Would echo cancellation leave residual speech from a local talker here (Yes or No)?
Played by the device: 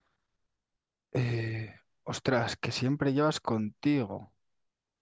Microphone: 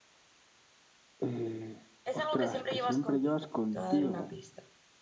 Yes